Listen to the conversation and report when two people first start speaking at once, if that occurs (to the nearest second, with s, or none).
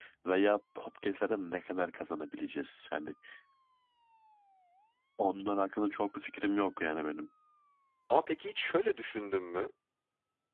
none